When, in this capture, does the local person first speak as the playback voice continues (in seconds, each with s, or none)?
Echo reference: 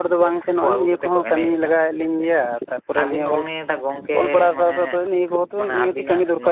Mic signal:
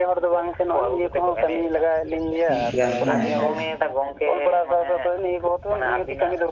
2.5 s